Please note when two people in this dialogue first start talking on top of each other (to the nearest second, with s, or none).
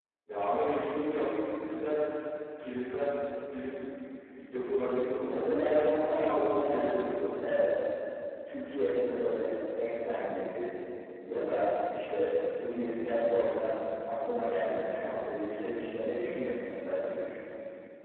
5 s